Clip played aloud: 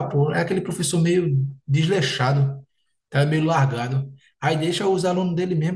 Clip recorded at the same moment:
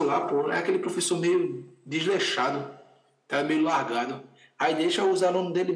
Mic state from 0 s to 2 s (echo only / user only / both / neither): echo only